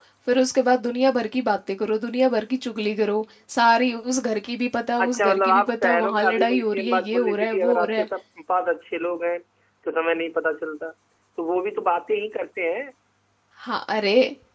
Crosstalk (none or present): present